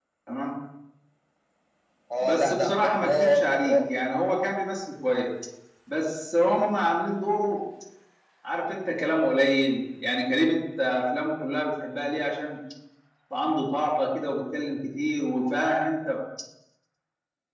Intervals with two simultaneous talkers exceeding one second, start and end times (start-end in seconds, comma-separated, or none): 2.2-3.9